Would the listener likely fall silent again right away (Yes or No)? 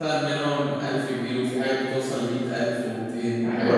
No